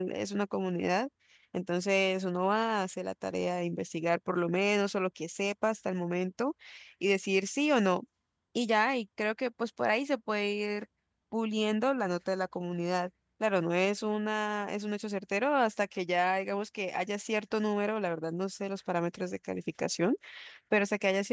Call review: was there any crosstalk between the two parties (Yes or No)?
No